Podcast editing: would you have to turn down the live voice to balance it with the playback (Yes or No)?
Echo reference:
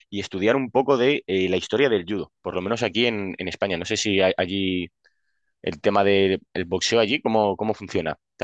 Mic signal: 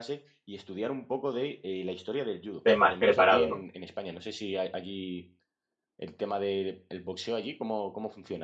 Yes